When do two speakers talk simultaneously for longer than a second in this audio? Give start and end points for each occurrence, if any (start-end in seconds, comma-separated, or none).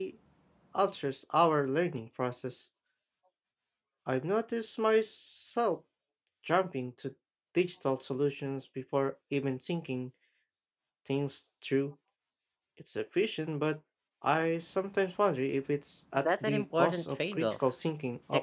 16.2-17.5